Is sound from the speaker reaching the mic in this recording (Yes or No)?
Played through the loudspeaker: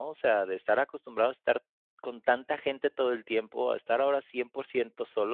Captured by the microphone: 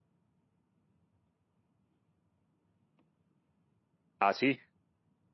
No